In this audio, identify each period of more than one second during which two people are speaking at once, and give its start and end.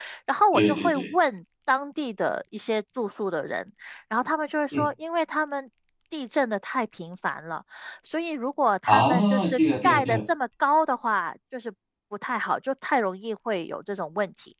8.9-10.2

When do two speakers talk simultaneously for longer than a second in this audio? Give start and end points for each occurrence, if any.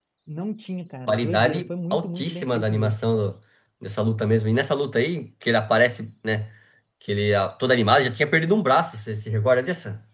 1.1-3.0

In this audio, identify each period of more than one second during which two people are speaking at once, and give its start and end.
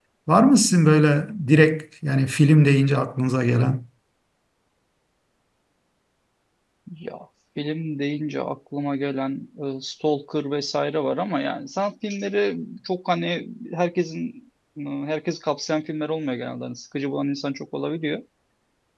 none

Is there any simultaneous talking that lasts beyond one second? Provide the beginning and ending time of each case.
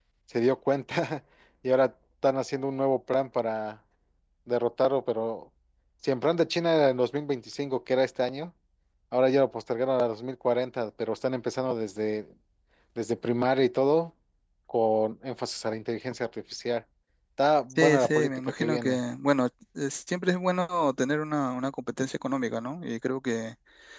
17.8-19.0

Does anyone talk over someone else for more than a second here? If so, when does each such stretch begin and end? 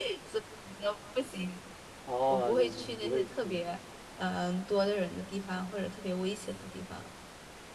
2.3-3.6

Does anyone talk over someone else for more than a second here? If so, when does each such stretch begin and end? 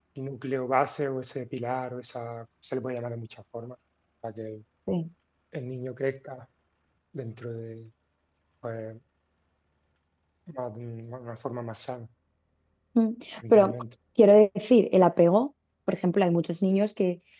none

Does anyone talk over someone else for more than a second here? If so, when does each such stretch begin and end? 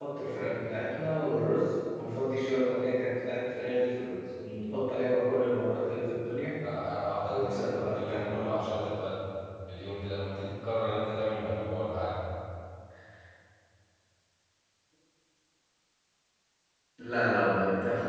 7.3-8.9

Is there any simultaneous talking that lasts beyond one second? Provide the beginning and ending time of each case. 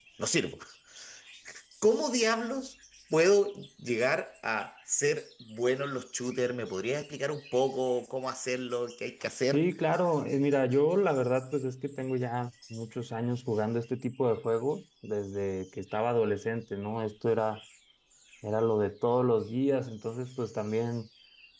none

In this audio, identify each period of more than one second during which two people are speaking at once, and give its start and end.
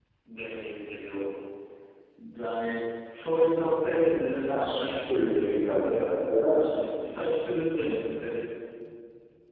4.5-6.8

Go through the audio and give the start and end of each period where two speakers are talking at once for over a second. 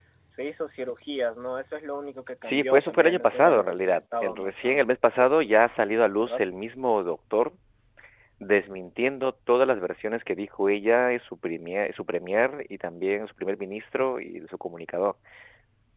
2.4-4.8

